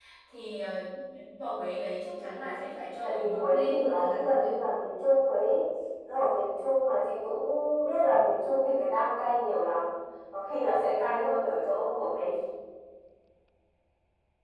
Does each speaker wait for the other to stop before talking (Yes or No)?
No